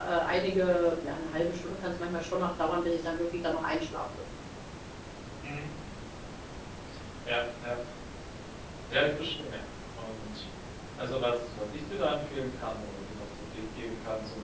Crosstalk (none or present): none